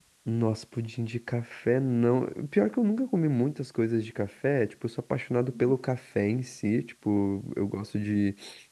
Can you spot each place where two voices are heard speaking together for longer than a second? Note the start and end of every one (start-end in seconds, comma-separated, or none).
none